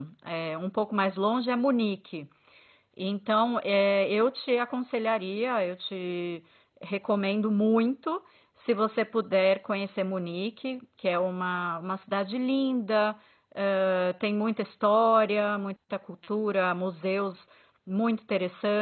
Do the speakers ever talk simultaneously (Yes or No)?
No